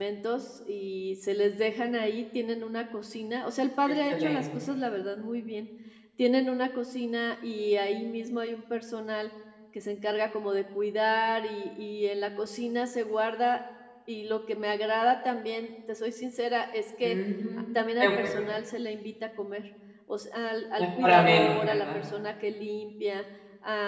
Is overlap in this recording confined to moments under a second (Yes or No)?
No